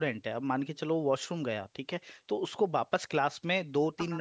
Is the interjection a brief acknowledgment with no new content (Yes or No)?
Yes